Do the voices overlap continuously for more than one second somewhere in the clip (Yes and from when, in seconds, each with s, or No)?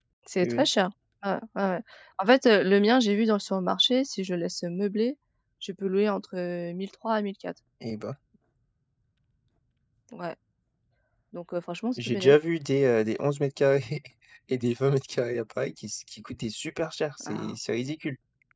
No